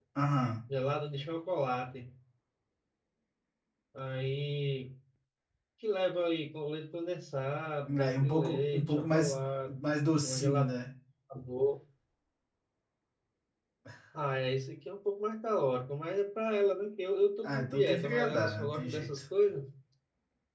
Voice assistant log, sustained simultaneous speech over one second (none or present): present